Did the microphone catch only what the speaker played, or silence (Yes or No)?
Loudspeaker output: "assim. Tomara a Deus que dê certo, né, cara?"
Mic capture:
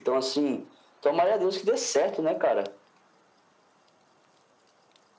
Yes